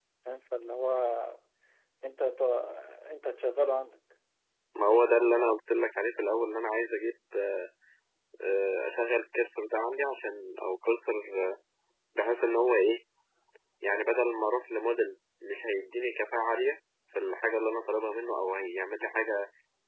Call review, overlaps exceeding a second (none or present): none